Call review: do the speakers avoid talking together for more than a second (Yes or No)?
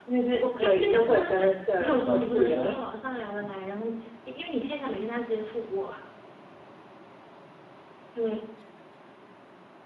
No